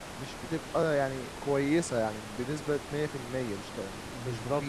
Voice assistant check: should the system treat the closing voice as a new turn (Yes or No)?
Yes